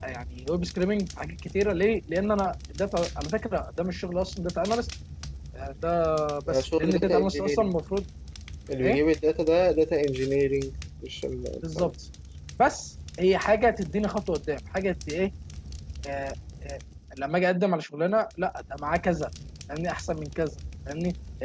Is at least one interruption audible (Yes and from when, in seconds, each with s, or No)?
Yes, from 6.5 s